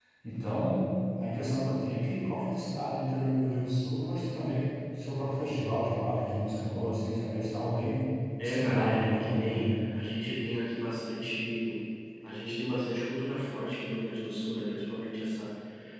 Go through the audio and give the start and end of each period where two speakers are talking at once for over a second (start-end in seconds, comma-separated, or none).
8.4-9.8